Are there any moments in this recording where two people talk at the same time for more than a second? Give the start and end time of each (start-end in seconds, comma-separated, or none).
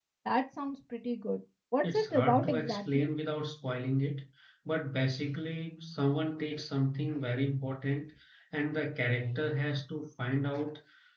1.8-3.1